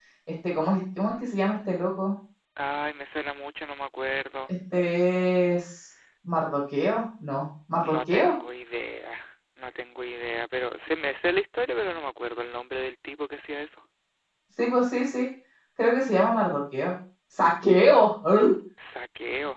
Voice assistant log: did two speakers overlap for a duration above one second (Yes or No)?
No